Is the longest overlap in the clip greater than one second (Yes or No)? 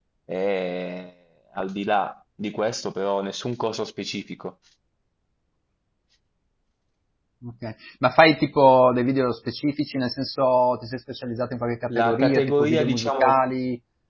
Yes